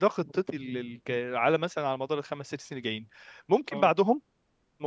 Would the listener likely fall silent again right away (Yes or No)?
Yes